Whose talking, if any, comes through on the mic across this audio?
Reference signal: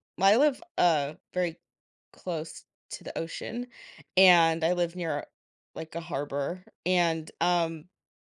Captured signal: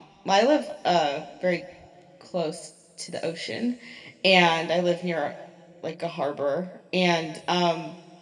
echo only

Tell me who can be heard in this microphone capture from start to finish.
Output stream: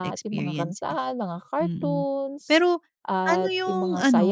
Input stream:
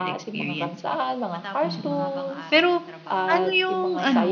both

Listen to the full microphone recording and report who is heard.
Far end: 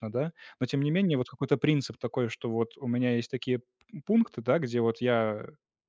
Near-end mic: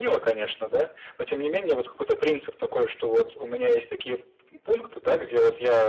echo only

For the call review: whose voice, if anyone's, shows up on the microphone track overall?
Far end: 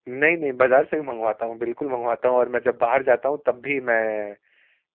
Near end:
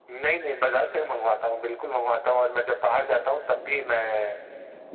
echo only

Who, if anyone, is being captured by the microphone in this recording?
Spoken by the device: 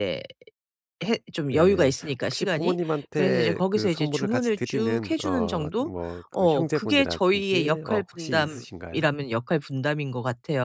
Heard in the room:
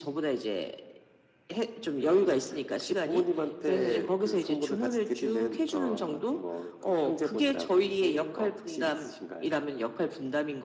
echo only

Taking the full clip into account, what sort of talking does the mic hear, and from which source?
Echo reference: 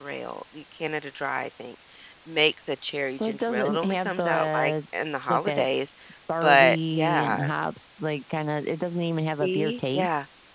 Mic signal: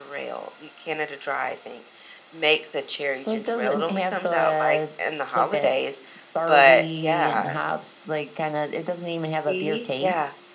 echo only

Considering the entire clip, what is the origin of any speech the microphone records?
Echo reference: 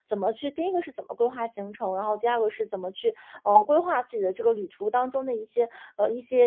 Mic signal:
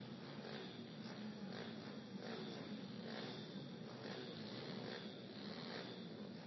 neither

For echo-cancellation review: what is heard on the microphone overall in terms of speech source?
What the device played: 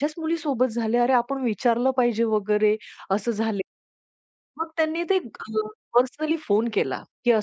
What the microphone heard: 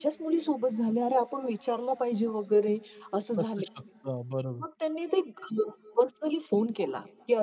both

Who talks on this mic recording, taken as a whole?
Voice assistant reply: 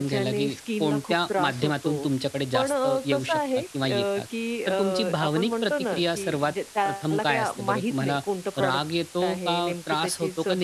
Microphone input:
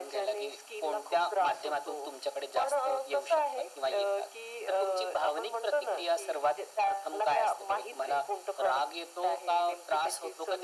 echo only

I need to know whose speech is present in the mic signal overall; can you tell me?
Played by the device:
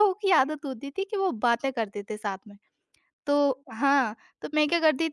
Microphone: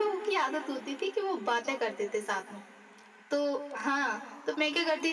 echo only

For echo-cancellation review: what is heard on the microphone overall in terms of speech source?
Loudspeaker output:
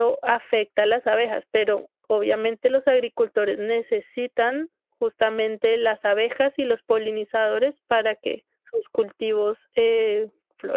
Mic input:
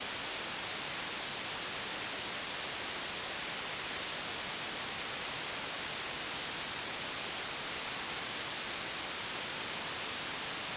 neither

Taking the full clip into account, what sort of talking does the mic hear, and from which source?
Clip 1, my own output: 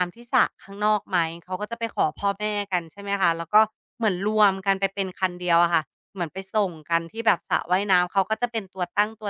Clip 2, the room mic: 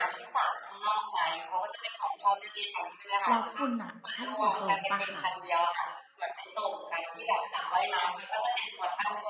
both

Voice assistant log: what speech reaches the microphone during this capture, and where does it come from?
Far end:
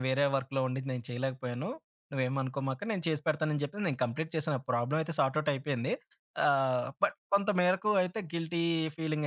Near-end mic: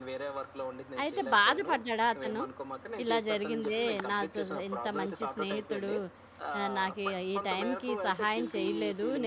both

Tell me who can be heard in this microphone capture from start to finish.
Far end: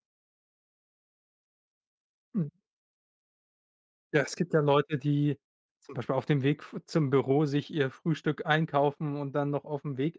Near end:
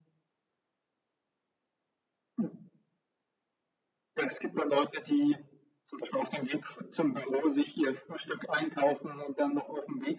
echo only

